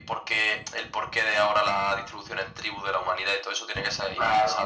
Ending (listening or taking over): taking over